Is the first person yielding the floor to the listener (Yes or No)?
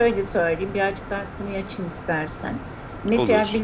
No